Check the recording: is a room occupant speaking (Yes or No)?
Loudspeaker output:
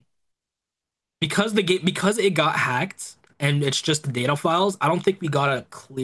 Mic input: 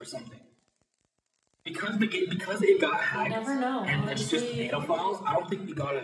Yes